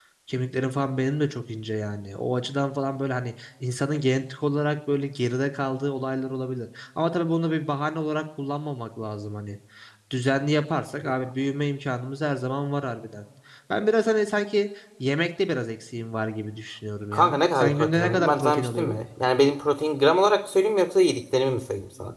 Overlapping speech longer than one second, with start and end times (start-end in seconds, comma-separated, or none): 17.1-19.0